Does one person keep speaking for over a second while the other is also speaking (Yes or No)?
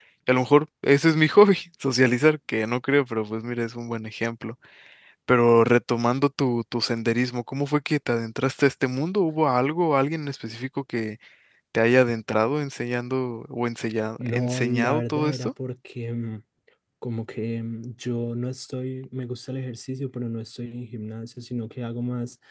Yes